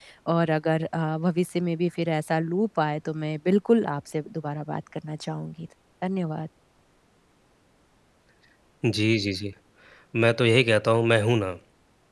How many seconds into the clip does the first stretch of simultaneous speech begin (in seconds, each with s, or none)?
none